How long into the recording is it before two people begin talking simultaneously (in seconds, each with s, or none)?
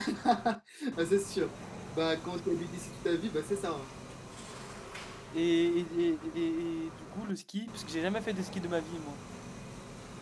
none